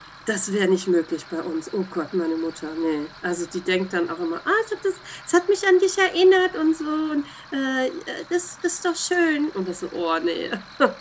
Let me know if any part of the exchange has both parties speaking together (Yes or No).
No